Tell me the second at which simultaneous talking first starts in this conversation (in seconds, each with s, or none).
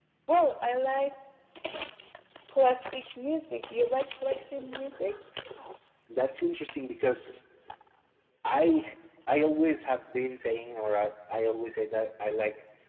none